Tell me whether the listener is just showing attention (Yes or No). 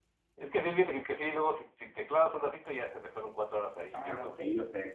No